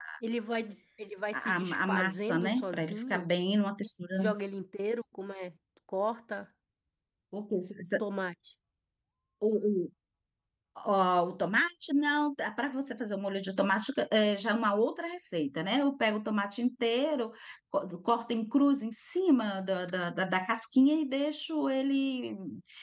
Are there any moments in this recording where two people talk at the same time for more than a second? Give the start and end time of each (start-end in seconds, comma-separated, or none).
1.3-3.2